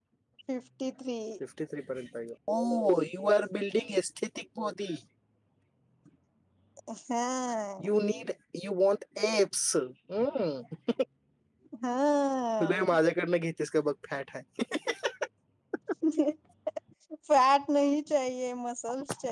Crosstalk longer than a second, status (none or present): none